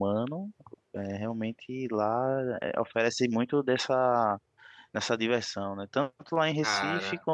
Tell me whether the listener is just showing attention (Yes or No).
Yes